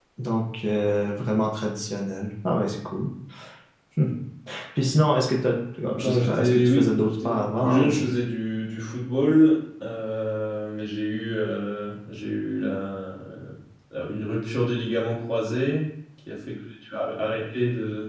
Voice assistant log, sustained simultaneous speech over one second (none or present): present